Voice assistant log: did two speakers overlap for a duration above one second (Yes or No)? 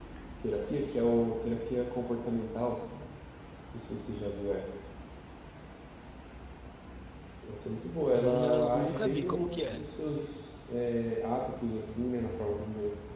Yes